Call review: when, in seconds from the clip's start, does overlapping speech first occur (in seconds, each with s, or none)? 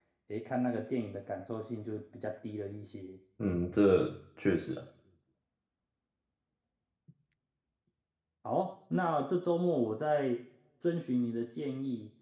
none